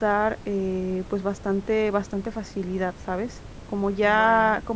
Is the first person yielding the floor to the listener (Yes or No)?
No